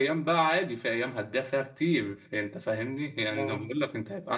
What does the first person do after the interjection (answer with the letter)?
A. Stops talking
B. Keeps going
B